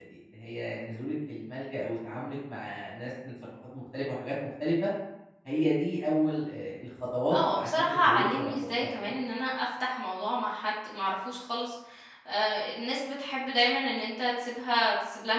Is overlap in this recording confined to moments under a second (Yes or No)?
No